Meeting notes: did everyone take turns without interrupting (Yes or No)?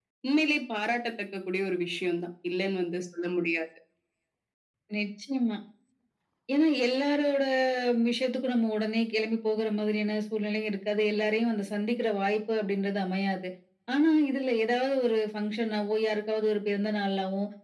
Yes